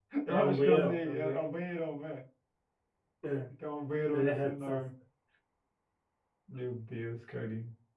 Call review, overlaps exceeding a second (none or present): present